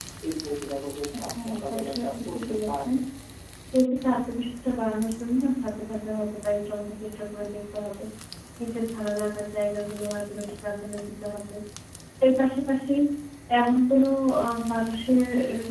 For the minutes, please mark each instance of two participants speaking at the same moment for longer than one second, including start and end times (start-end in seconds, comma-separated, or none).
1.4-2.9